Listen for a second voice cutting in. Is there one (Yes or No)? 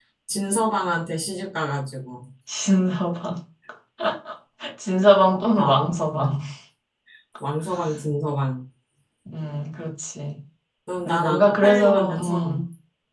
Yes